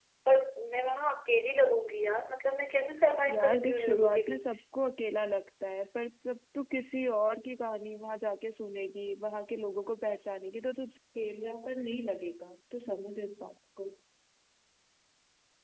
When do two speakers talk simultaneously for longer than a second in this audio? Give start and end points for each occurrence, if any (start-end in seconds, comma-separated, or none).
3.3-4.6